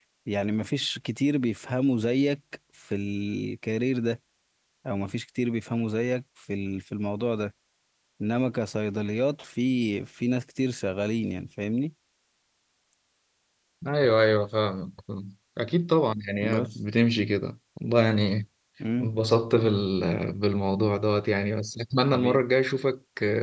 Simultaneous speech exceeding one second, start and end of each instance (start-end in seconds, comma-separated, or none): none